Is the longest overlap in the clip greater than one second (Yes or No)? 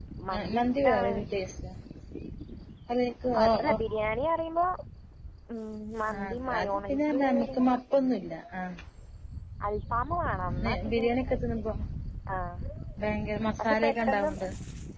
Yes